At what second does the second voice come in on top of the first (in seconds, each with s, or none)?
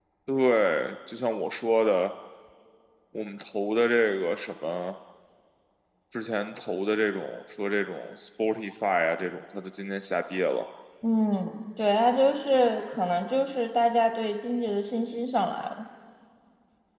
none